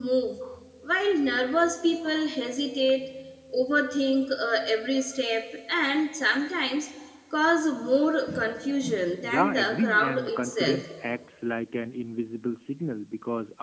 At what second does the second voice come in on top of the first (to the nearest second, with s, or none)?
9 s